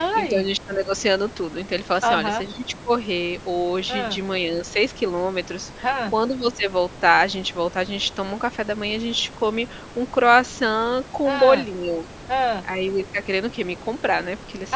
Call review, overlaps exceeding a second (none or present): none